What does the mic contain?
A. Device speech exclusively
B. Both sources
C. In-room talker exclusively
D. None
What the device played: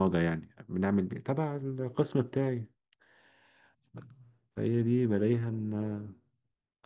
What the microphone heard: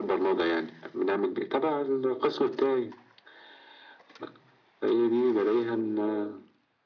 A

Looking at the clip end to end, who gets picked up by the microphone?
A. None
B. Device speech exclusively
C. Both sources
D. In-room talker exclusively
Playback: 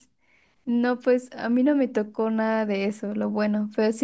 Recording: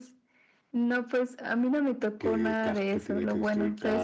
C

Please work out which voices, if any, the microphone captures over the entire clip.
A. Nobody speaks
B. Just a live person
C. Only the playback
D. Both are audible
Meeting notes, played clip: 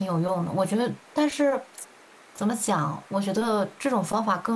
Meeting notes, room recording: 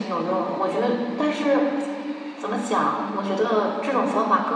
C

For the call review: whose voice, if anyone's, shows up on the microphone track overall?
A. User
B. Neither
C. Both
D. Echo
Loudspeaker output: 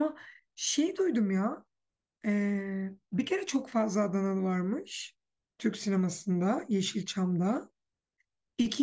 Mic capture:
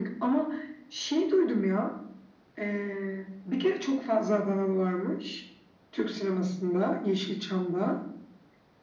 D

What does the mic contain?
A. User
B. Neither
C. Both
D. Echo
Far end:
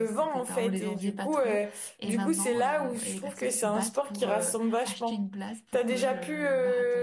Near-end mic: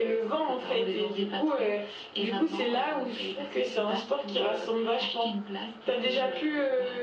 D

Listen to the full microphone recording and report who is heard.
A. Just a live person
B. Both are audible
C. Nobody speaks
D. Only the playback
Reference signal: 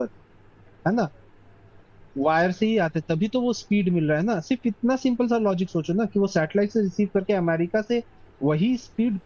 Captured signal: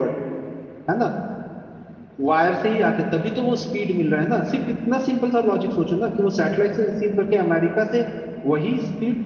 D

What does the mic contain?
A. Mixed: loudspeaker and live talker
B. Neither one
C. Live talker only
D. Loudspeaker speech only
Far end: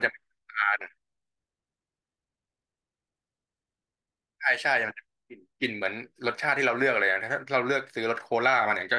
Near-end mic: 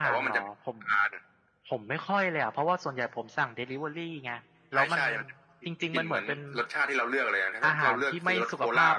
A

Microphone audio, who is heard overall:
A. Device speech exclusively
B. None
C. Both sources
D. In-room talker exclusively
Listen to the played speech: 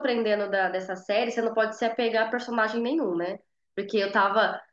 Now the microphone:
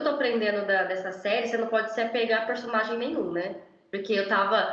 A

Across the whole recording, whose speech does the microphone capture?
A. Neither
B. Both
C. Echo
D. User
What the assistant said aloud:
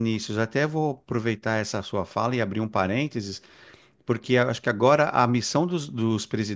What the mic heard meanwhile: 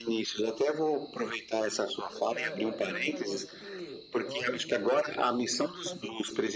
B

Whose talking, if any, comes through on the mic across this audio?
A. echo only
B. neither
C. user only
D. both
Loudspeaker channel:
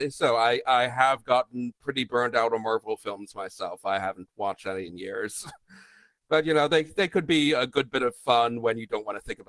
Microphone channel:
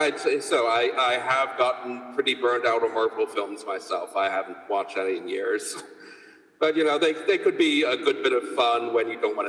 A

